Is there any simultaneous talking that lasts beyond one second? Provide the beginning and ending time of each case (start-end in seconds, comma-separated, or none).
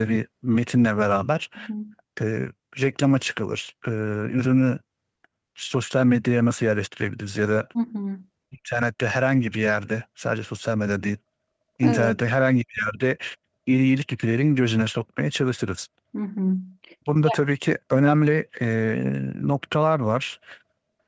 none